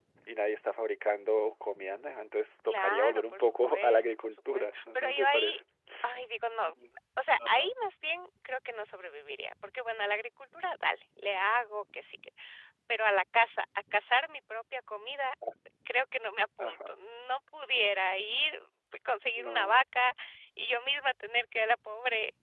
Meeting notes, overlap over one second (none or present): present